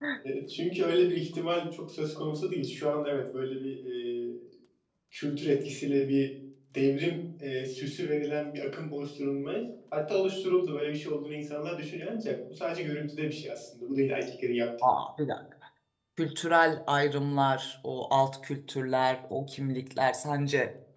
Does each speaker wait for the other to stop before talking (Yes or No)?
Yes